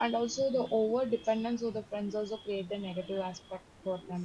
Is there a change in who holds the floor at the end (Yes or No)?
No